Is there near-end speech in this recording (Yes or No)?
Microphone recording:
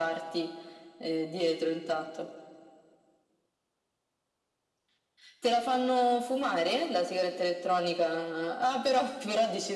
No